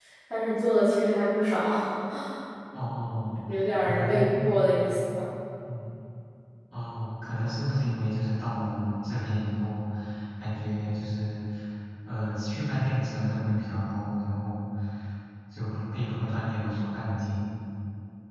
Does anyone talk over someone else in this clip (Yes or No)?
Yes